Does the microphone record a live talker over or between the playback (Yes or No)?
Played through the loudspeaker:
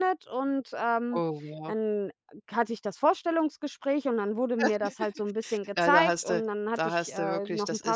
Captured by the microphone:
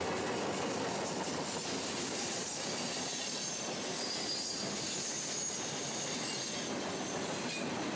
No